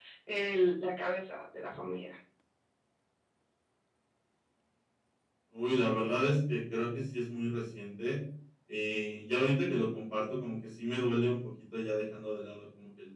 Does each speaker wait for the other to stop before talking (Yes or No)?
Yes